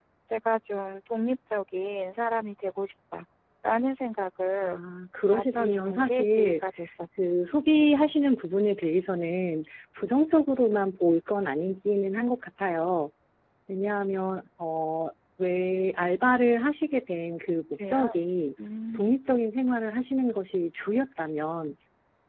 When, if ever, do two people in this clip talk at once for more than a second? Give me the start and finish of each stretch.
5.3-6.6

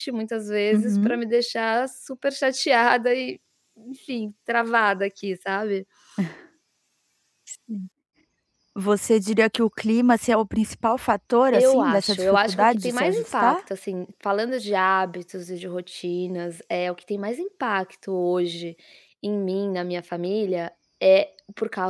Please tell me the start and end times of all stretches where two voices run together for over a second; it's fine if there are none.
11.5-13.6

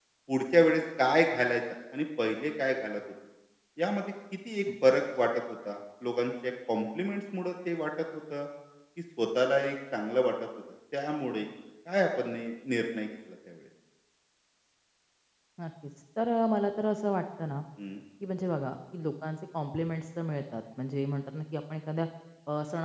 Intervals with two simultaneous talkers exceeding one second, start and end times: none

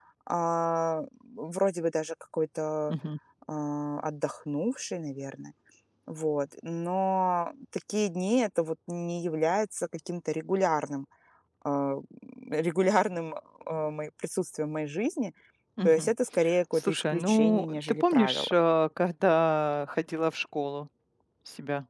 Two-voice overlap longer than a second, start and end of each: 16.7-18.5

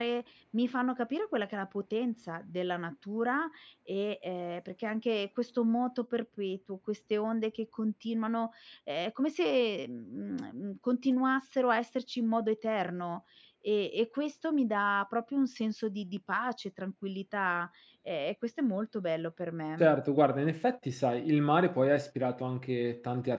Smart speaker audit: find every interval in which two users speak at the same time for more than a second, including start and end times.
none

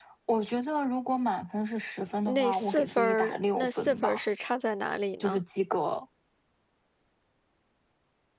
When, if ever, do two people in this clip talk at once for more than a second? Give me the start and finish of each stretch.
2.2-4.2

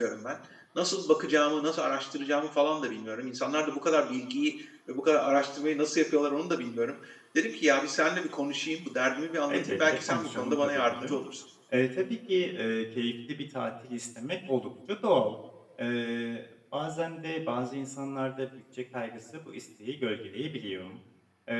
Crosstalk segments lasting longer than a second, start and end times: 9.5-11.1

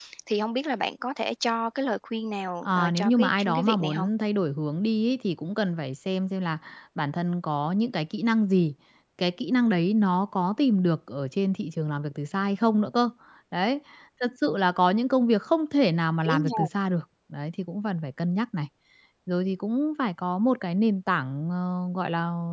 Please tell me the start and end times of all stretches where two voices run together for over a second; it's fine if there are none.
2.6-4.1

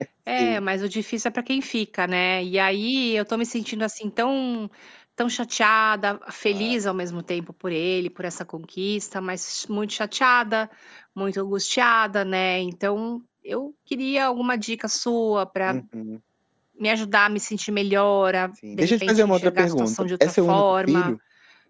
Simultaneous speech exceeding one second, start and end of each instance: 18.7-21.1

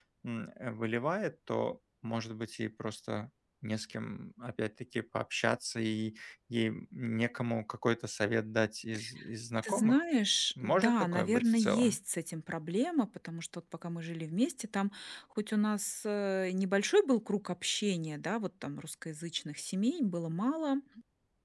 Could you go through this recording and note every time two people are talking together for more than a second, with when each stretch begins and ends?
10.6-12.0

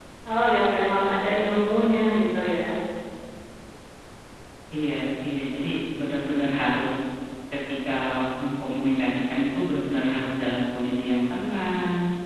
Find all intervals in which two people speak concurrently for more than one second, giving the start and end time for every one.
none

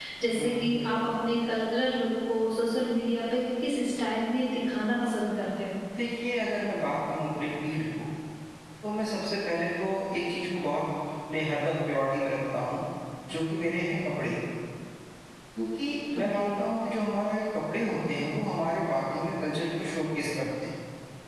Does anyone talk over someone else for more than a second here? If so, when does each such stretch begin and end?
none

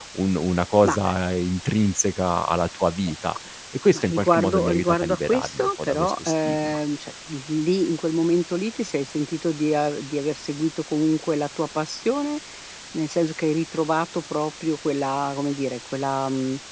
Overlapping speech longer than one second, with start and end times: 3.9-6.8

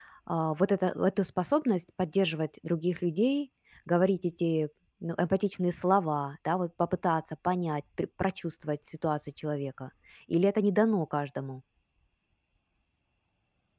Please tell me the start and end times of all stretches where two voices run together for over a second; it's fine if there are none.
none

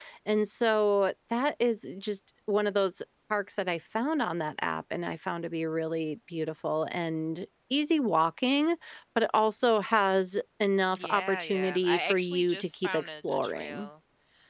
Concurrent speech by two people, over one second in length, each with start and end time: 11.0-13.9

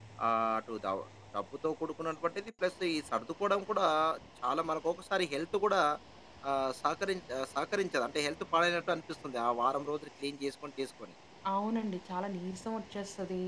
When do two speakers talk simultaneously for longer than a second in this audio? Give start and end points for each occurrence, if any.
none

